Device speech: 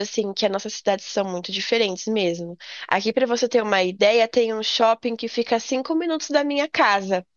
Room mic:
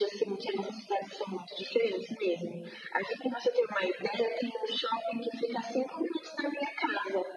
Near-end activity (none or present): none